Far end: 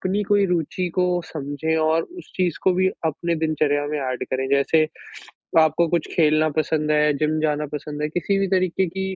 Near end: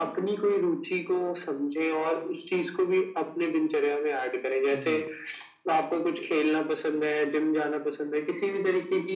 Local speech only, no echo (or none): जी।